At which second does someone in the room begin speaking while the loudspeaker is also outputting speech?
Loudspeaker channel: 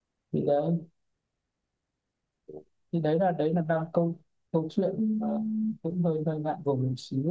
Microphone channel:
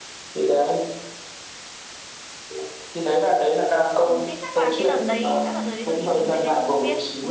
4 s

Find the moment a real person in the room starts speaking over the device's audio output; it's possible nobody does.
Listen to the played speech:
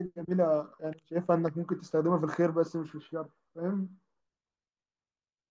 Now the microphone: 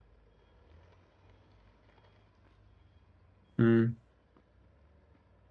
4 s

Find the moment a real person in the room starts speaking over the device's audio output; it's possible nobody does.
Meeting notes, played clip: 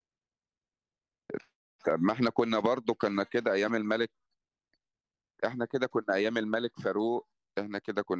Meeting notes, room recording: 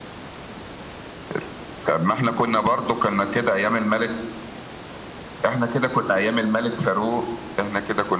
none

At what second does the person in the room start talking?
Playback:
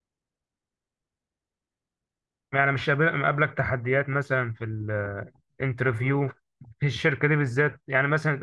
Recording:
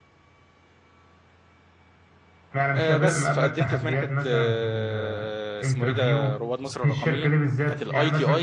3 s

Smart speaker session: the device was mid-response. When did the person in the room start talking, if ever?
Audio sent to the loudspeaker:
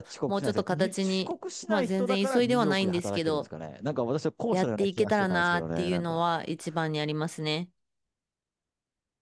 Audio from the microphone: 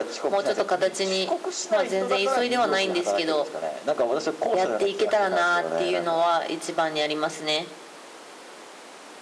none

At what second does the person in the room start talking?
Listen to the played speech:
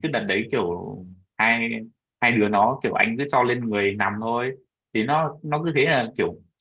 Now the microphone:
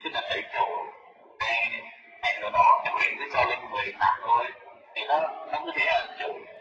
none

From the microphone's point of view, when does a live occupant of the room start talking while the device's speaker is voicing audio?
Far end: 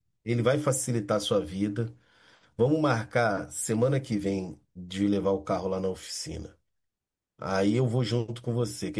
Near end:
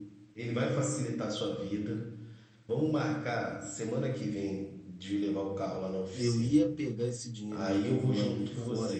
6 s

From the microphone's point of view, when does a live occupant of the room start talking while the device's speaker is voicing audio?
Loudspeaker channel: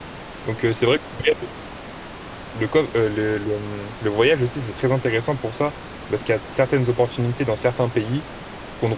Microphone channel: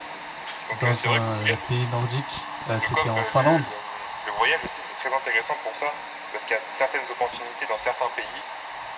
1 s

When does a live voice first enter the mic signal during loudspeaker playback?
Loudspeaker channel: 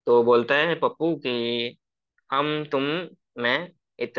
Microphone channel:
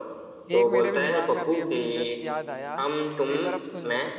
1 s

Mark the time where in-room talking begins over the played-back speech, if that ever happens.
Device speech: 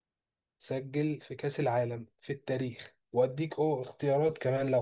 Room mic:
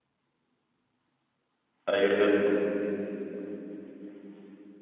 2 s

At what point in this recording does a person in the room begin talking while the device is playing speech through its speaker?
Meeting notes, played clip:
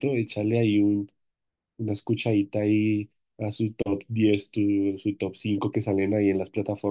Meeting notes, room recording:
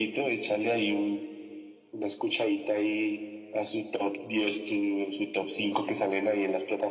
none

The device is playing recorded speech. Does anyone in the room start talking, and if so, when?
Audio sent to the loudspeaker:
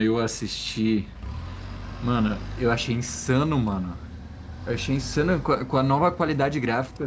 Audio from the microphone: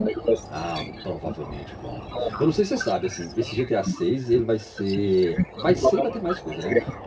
0 s

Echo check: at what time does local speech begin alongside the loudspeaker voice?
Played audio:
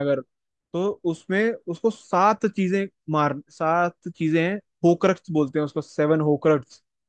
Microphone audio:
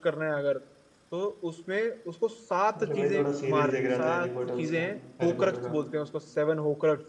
3 s

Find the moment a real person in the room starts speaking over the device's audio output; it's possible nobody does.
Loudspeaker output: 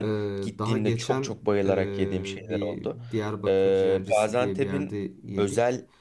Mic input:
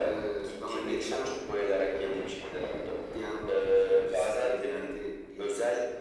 none

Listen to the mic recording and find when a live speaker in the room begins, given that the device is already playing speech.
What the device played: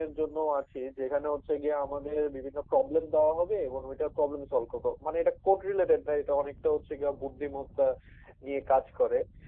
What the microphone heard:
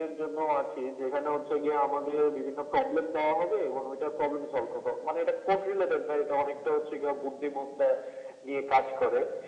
none

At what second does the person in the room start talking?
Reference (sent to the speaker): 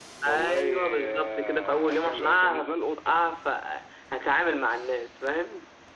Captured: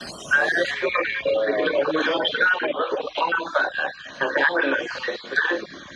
none

